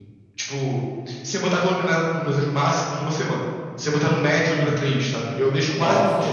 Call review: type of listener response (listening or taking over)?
listening